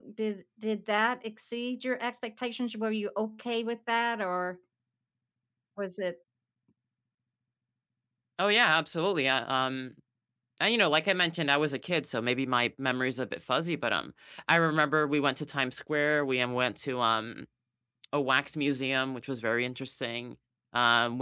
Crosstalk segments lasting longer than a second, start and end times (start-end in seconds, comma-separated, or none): none